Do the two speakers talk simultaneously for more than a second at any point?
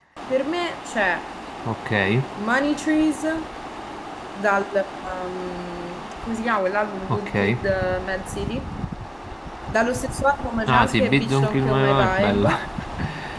Yes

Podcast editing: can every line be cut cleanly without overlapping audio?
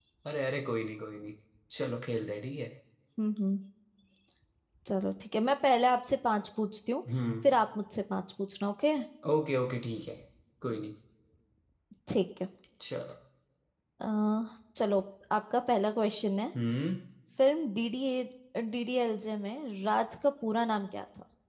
Yes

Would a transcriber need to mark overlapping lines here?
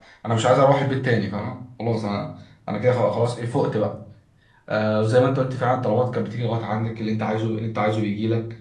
No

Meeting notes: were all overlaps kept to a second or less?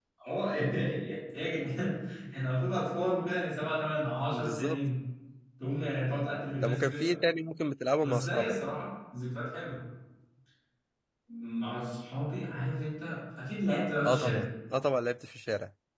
Yes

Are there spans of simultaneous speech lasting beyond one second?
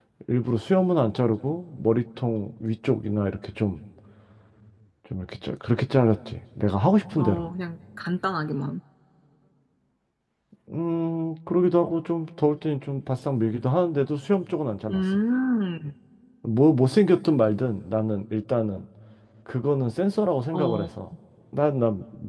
No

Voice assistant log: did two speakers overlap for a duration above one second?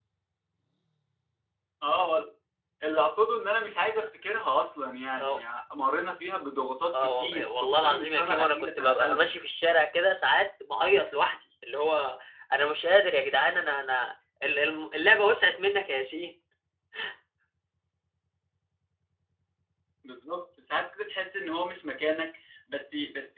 Yes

